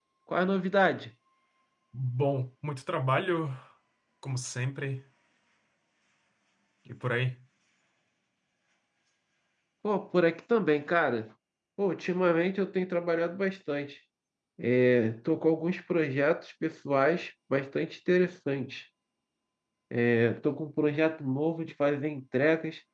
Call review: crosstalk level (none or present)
none